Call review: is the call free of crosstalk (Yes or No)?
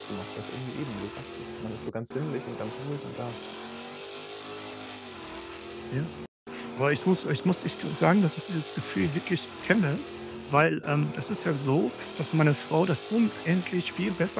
Yes